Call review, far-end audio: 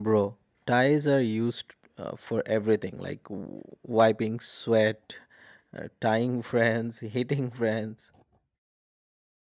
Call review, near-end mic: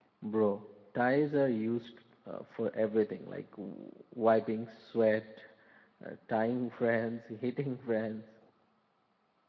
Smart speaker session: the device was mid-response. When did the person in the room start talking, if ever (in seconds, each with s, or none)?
none